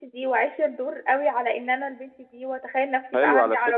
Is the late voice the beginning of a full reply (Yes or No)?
Yes